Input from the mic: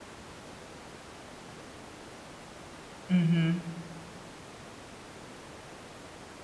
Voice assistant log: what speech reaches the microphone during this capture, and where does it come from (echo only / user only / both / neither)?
user only